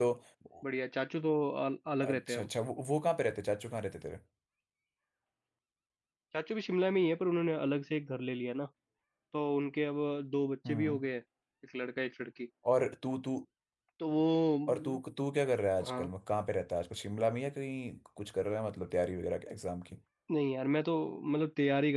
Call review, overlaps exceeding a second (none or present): none